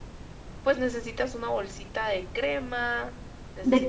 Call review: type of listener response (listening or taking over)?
taking over